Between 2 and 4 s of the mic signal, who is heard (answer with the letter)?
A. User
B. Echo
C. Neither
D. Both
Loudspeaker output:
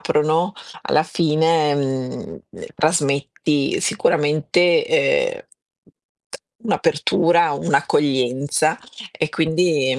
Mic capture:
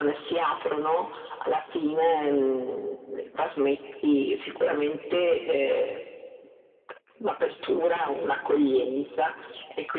B